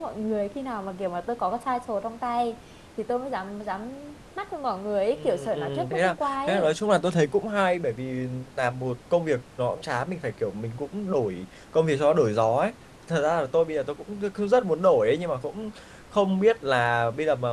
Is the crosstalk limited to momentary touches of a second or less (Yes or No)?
No